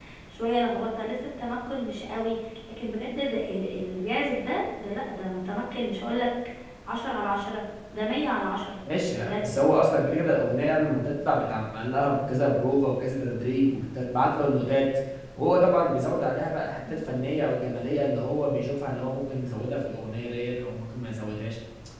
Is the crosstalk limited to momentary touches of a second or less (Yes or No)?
Yes